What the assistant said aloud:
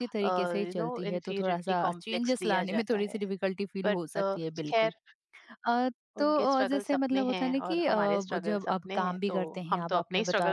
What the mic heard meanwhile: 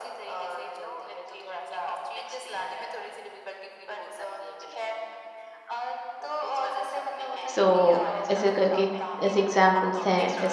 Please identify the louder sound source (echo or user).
user